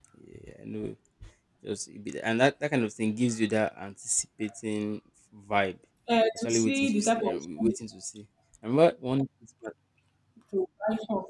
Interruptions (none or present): present